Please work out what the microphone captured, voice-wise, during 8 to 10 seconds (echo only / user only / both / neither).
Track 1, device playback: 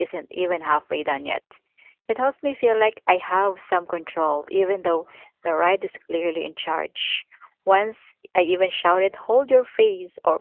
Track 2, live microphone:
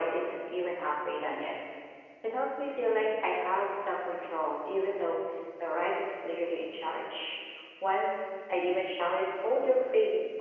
echo only